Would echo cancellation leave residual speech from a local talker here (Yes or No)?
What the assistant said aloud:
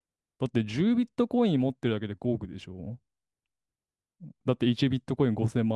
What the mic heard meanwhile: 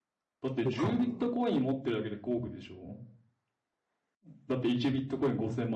Yes